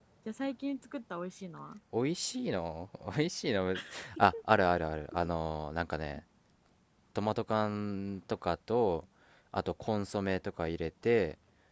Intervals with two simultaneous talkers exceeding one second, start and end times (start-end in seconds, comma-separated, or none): none